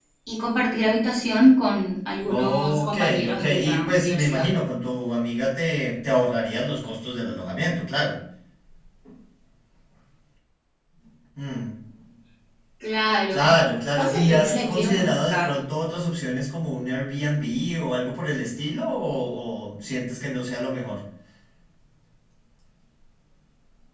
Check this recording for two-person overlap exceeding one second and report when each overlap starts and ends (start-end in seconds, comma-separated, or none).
2.3-4.5, 14.0-15.5